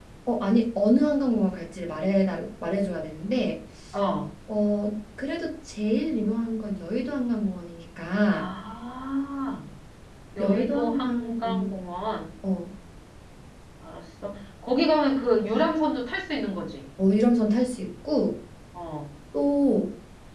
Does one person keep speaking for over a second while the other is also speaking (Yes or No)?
Yes